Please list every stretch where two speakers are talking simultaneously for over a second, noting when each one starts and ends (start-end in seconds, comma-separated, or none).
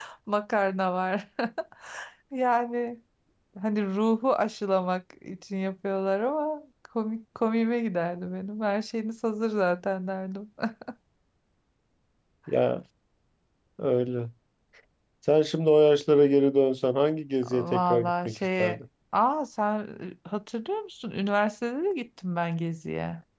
17.5-18.8